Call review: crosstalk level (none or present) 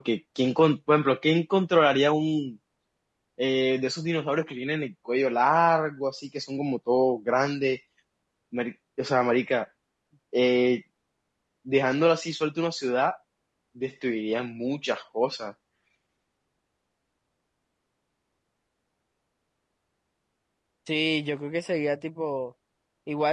none